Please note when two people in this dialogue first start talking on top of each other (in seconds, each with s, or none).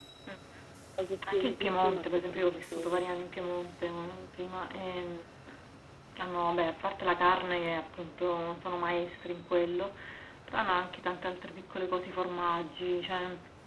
1.3 s